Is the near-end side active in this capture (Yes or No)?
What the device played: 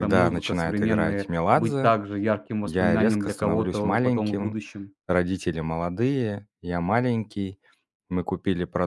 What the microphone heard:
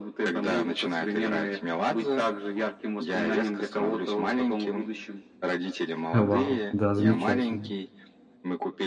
Yes